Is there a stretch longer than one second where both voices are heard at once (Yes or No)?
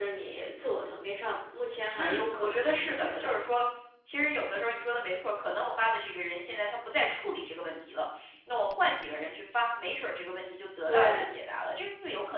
Yes